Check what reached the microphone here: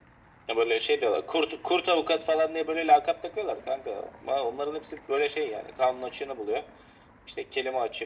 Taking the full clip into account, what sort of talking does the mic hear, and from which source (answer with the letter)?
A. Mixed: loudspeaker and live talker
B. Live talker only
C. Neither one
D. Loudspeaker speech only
D